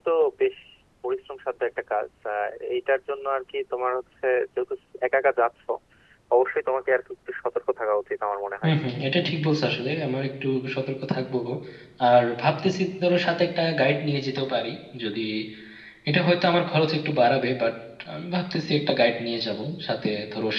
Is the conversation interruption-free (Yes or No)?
Yes